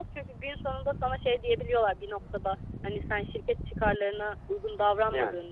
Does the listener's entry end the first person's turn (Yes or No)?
No